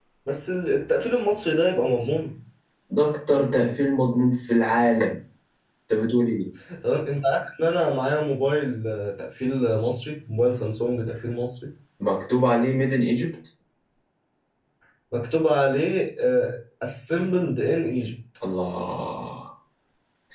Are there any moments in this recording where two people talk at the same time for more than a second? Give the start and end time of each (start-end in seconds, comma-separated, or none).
none